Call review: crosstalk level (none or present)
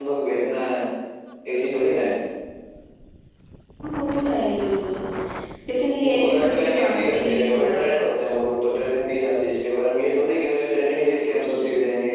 present